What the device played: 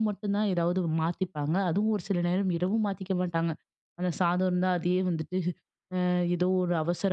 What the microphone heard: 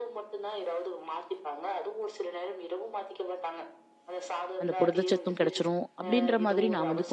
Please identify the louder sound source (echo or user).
user